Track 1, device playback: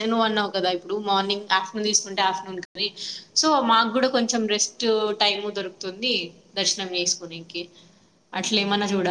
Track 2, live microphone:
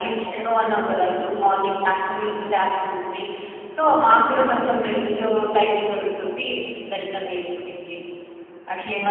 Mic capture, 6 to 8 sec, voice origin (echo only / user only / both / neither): echo only